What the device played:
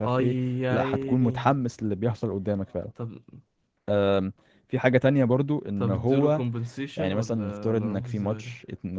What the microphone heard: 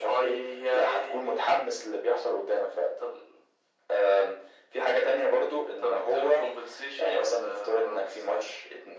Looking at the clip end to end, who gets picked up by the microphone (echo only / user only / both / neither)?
echo only